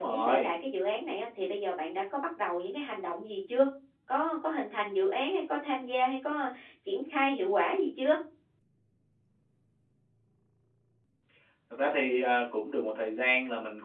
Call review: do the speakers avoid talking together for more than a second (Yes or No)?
Yes